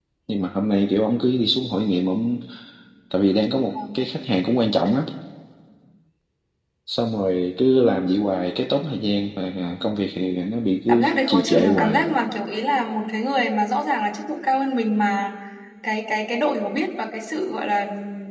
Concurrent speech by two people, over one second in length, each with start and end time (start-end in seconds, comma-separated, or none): 10.9-12.1